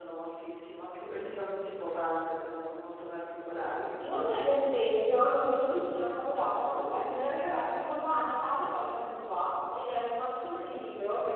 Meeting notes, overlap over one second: none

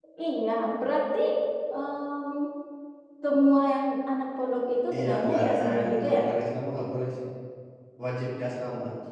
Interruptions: present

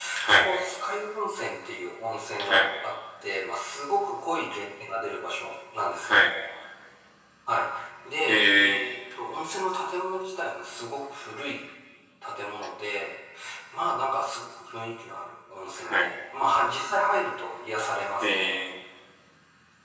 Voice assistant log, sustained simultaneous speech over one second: none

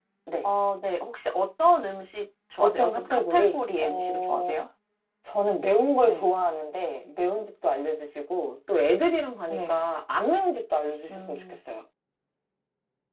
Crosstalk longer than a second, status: present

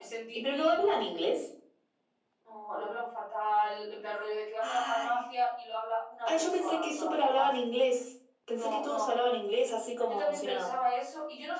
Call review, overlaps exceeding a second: present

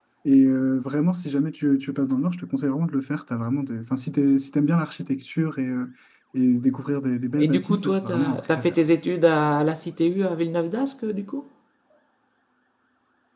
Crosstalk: present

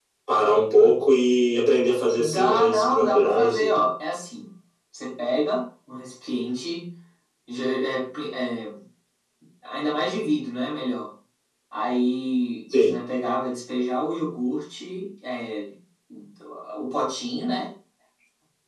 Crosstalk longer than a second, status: present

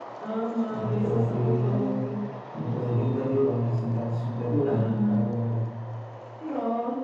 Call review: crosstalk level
present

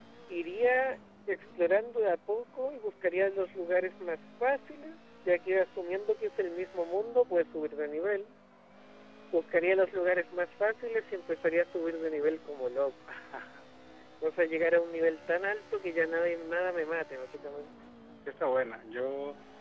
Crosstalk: none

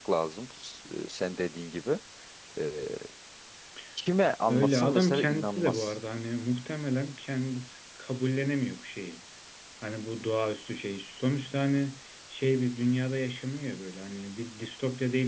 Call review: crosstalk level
present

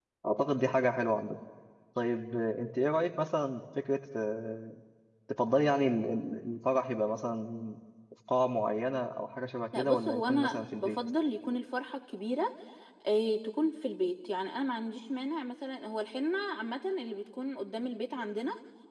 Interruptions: present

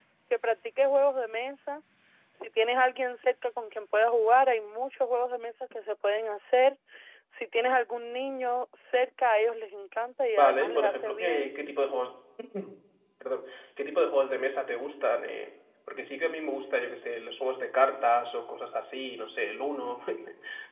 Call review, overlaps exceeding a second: present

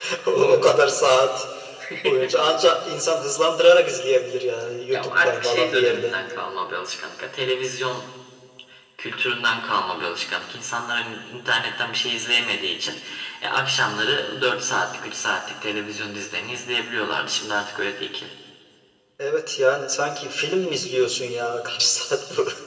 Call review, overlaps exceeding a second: present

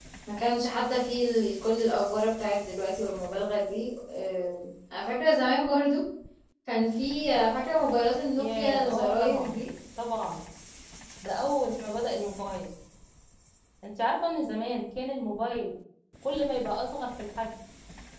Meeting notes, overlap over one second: present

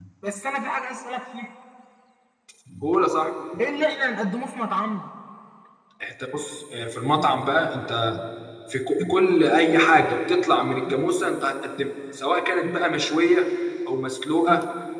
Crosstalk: none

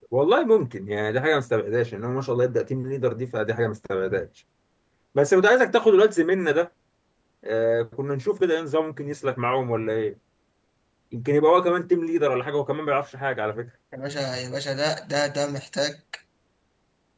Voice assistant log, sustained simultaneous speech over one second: none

